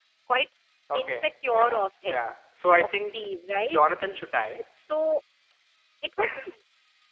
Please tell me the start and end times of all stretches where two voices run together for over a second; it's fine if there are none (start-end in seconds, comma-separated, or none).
0.9-2.3